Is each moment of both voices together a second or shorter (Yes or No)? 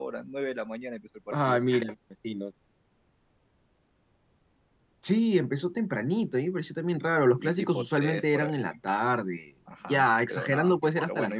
No